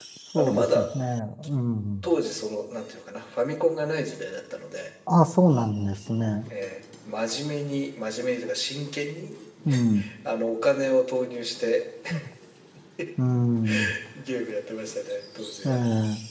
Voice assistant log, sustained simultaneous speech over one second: none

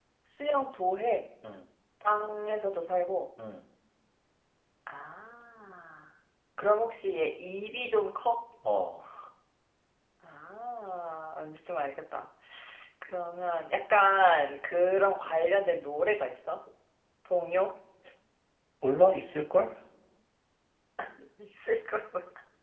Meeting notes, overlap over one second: none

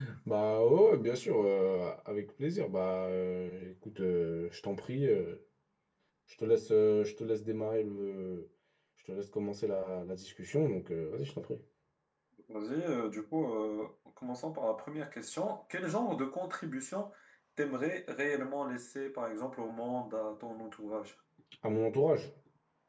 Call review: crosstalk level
none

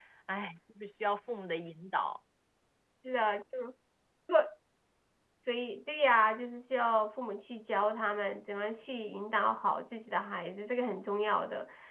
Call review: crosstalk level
none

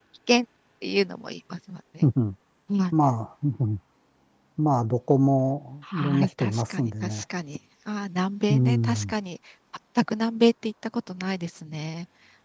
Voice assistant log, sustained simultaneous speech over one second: present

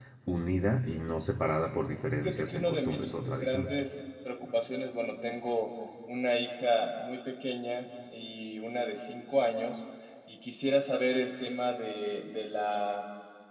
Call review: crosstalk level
present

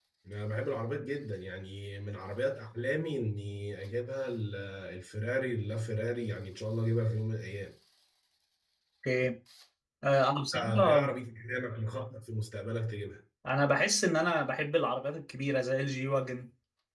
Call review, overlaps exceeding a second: none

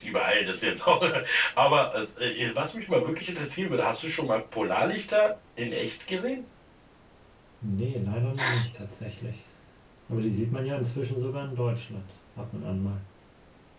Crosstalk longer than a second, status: none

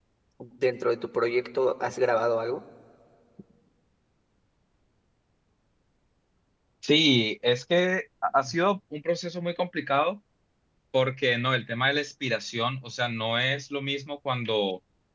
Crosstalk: none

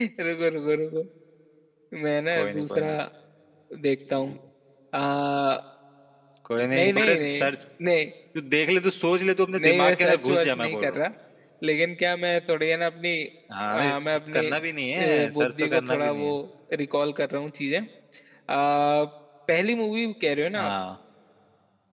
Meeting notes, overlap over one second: present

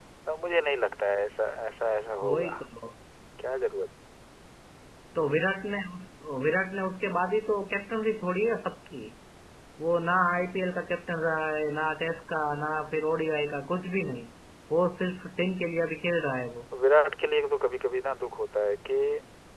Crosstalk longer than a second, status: none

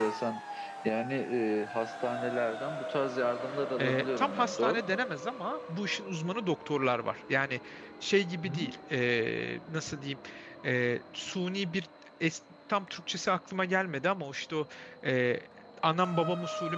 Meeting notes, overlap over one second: present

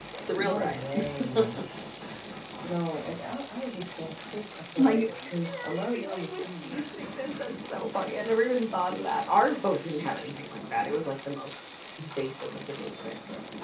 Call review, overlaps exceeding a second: present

